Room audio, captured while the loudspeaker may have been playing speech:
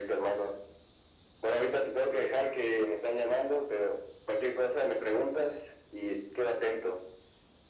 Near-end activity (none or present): none